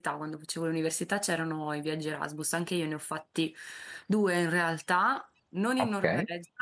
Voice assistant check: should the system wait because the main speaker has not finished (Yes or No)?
Yes